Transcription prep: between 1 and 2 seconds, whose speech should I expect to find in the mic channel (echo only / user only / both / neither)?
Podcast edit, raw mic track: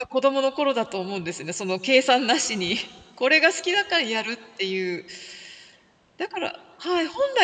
user only